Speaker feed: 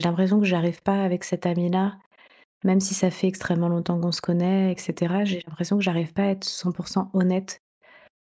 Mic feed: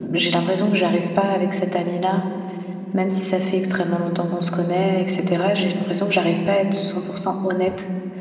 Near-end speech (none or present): none